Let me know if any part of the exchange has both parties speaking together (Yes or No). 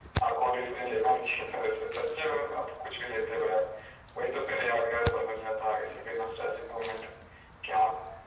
No